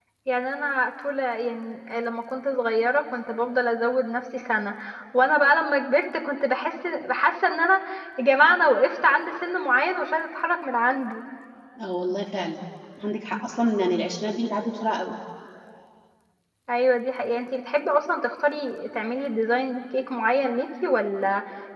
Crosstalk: none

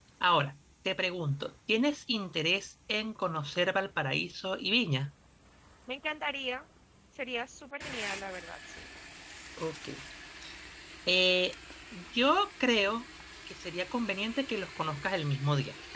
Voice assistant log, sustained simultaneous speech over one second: none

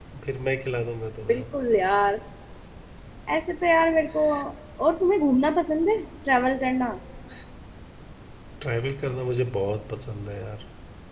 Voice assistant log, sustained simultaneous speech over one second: none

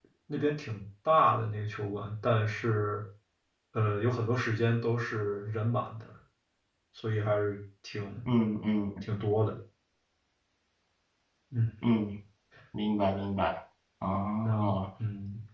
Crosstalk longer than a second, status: none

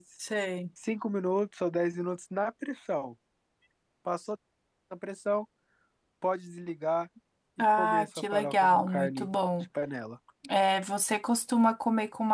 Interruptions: present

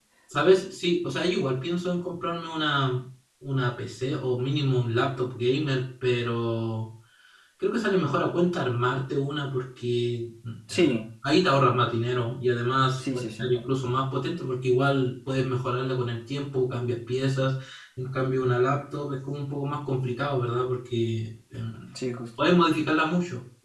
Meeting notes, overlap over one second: none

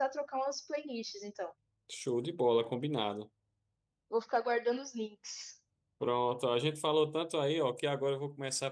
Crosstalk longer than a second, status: none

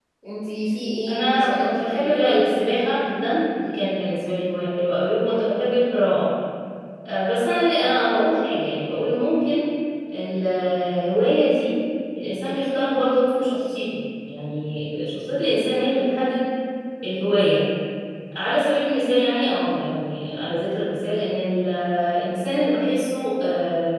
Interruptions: present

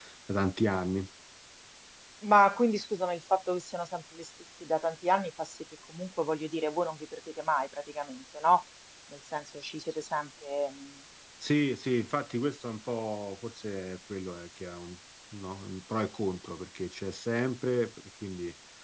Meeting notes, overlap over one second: none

